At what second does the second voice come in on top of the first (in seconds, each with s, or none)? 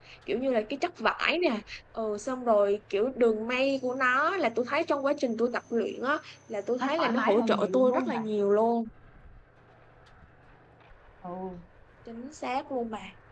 6.8 s